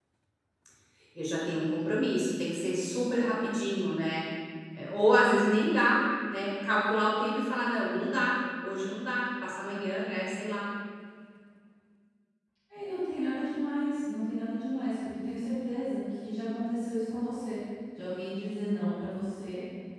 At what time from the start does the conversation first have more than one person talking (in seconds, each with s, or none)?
none